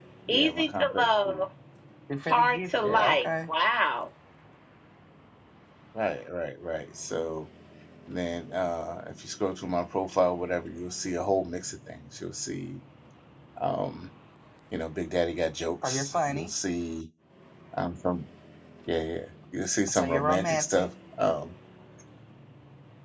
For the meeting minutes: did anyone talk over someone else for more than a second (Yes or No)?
Yes